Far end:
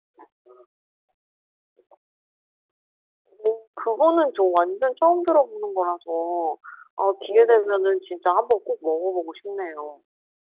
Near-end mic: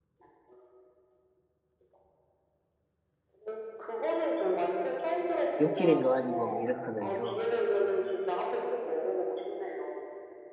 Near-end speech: present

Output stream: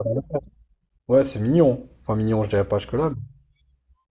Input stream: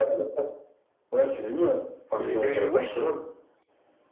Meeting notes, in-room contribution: present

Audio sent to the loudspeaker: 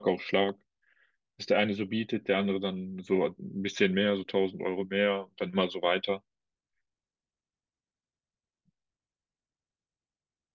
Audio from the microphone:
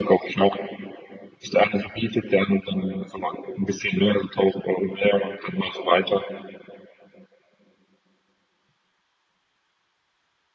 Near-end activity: none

